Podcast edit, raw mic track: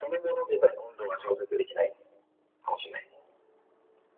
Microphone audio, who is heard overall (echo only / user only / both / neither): echo only